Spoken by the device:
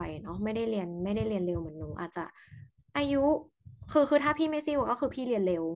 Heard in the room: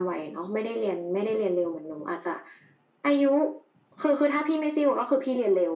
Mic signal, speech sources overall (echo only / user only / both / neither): echo only